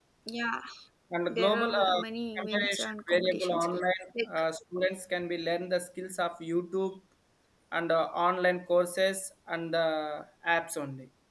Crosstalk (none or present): present